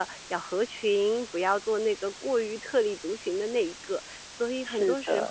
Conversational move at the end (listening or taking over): taking over